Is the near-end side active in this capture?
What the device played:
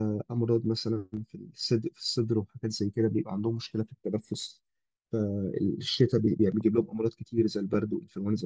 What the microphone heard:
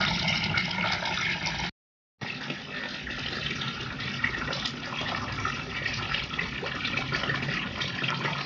No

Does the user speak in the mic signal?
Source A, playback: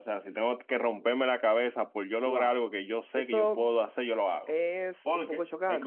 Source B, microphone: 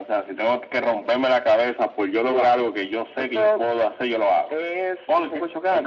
No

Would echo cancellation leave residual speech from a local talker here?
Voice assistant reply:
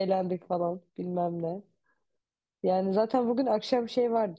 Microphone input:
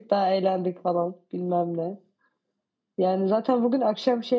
No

